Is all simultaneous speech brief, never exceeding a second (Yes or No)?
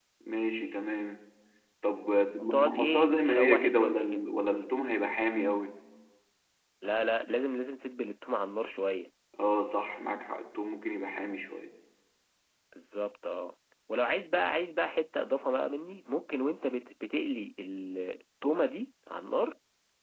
No